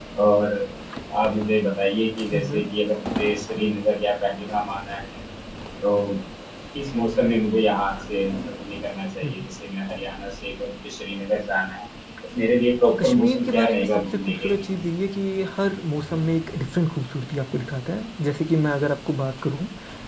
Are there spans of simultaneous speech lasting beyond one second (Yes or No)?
Yes